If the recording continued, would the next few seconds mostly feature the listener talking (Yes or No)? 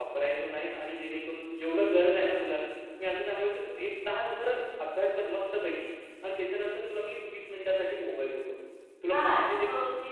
Yes